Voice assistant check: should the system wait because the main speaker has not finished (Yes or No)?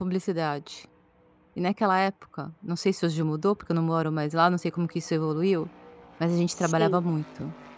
Yes